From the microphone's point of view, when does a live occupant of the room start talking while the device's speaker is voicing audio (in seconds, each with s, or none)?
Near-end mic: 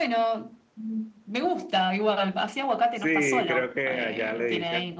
2.9 s